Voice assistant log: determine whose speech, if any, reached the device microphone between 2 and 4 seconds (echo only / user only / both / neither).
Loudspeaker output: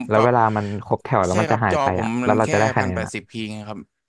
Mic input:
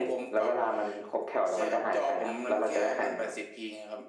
echo only